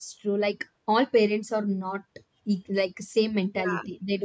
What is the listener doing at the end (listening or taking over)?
listening